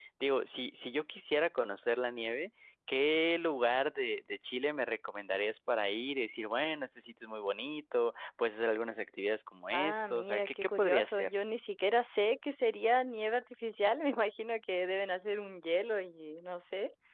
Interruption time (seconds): 9.7 s

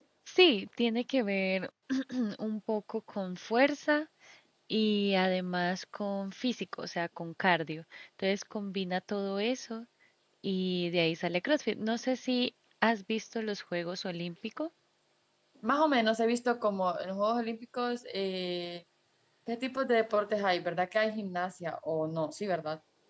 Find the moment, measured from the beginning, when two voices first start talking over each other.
none

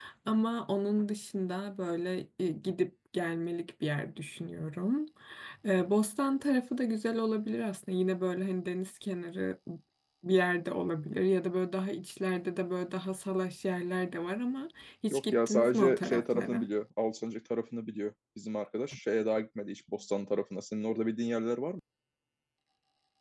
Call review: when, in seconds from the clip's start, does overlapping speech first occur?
15.1 s

